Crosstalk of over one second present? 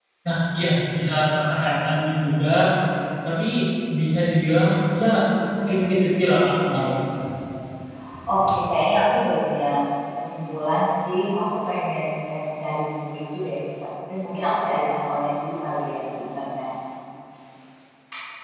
Yes, from 5.7 s

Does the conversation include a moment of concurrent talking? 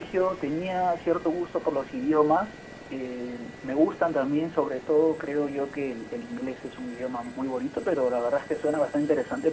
No

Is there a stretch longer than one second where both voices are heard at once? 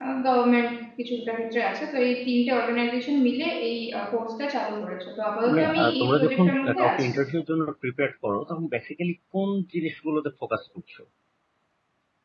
Yes, from 5.4 s

